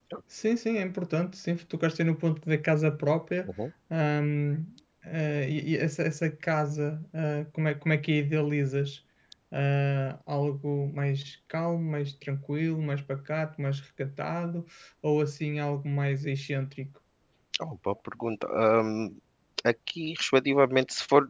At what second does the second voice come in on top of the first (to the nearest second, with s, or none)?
none